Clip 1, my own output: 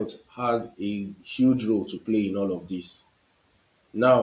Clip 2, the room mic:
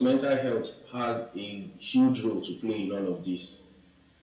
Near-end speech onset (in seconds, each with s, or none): none